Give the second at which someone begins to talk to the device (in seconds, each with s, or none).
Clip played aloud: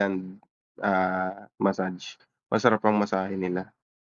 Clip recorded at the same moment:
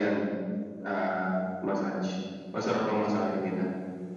none